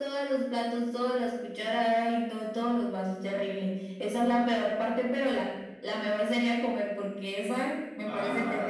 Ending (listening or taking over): taking over